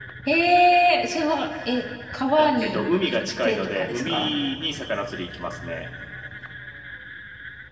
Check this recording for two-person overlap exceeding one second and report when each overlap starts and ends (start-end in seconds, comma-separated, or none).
2.4-4.3